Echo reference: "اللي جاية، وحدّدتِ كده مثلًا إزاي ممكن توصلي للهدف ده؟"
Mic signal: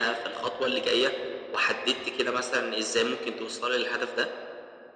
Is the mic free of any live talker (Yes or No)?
Yes